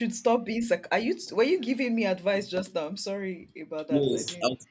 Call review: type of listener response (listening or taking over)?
taking over